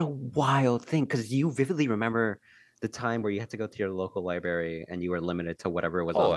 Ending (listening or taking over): taking over